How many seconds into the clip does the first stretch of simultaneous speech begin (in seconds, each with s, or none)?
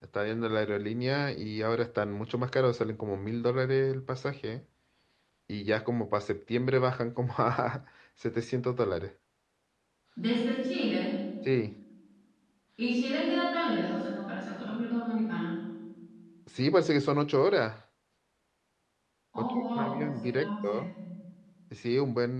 19.4 s